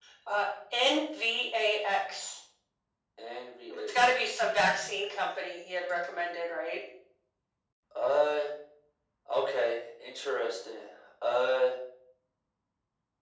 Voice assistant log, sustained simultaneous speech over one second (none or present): none